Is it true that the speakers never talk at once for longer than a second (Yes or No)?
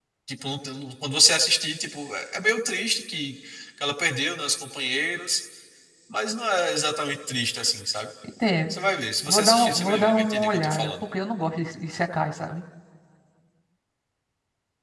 No